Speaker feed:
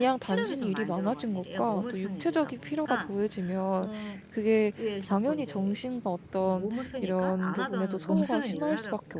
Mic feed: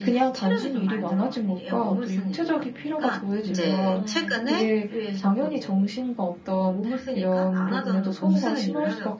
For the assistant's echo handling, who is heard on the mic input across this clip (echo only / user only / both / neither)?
both